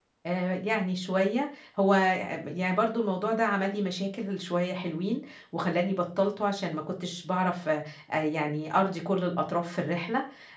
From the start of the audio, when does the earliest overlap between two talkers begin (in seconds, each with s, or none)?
none